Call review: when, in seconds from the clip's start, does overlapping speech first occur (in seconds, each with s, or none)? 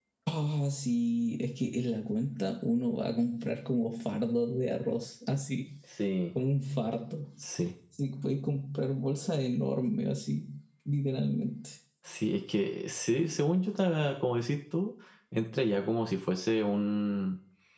none